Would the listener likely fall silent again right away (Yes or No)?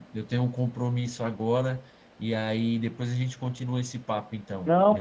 No